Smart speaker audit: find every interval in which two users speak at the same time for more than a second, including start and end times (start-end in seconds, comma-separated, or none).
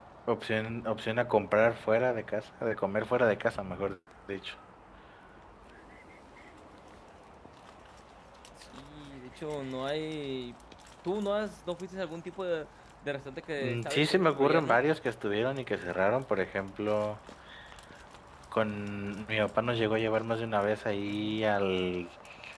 13.6-14.8